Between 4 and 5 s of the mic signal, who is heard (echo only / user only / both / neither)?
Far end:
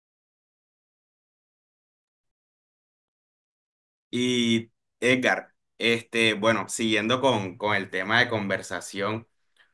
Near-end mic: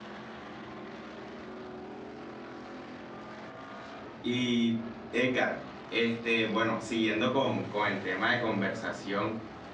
echo only